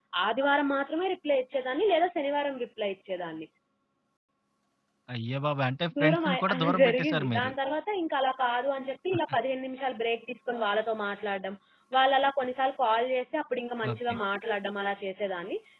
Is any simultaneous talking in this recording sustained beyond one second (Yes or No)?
Yes